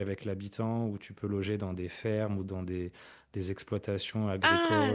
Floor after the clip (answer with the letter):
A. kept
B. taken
B